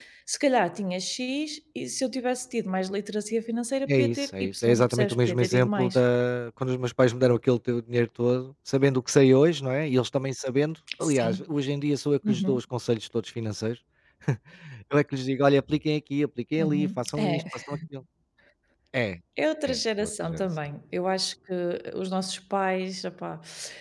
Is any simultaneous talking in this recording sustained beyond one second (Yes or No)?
Yes